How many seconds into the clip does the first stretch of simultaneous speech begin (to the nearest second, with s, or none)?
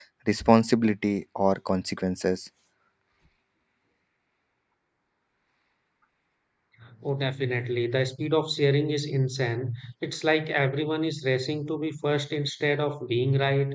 none